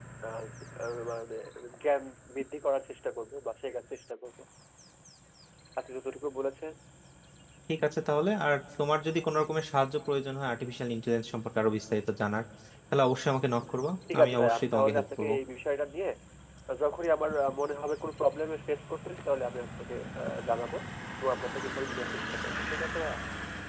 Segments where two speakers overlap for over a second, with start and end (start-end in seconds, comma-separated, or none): 14.1-15.3